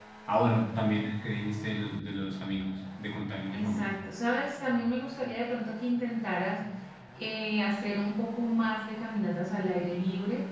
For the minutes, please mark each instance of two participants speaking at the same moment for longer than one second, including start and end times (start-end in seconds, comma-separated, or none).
none